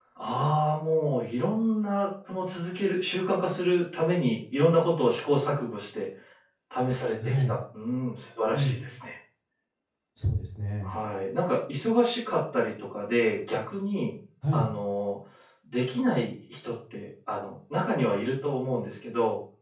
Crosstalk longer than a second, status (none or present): none